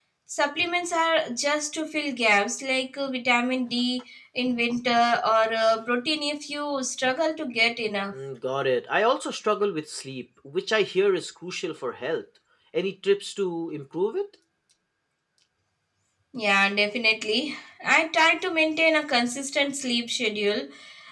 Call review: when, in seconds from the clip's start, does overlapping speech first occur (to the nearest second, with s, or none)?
none